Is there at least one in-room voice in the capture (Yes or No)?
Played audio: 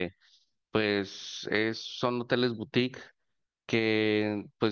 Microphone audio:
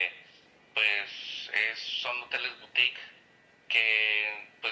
No